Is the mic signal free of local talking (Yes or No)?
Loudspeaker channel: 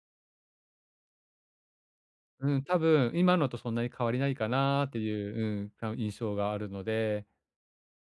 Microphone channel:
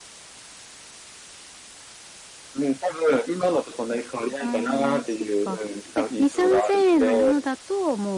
No